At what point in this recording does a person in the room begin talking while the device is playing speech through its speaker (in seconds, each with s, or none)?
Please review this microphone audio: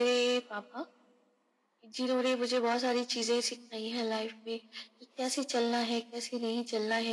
none